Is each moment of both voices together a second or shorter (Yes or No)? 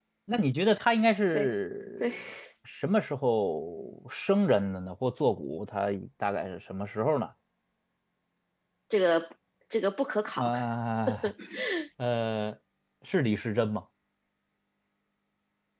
Yes